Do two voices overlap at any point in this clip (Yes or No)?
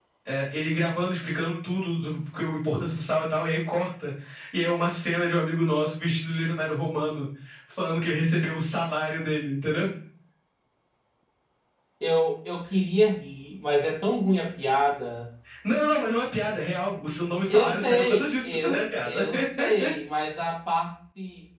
Yes